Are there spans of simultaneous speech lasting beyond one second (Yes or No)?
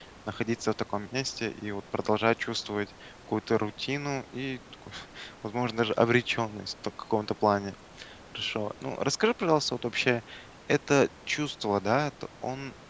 No